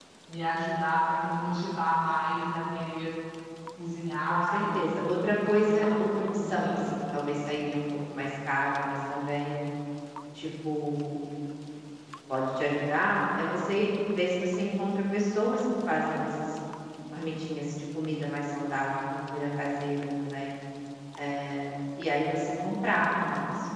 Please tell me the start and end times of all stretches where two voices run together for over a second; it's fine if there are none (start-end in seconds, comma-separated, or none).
4.3-6.8